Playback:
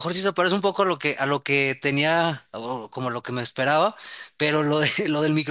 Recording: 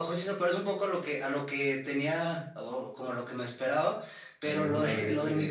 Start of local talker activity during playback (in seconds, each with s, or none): 4.4 s